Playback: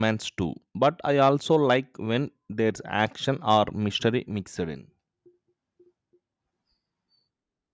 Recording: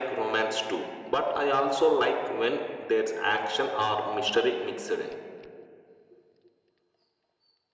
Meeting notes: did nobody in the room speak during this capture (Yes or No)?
Yes